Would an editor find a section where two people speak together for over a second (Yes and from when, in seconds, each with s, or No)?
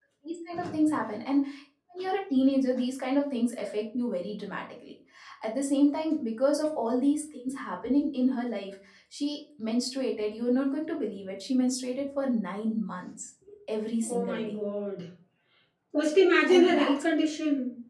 No